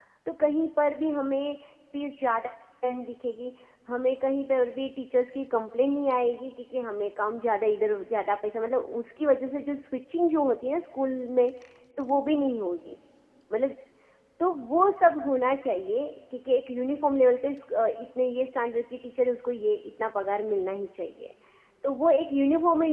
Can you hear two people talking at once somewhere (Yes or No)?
No